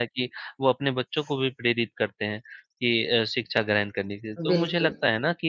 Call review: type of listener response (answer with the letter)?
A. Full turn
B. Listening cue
B